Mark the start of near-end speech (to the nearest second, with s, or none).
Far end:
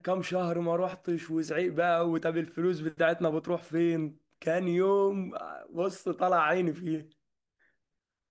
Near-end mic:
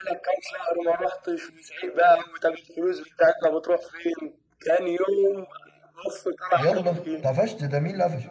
7 s